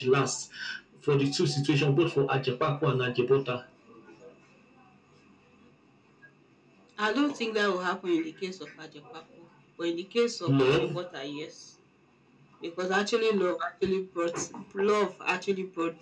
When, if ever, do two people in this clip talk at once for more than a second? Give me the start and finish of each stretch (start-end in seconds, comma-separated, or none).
none